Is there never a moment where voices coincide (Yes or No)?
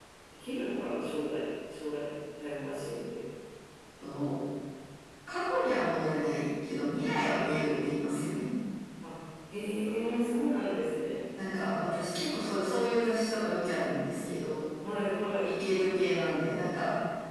Yes